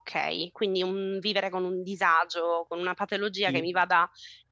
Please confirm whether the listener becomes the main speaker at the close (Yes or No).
No